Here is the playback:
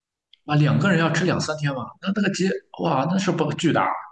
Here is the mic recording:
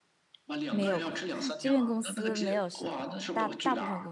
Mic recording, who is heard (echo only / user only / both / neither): both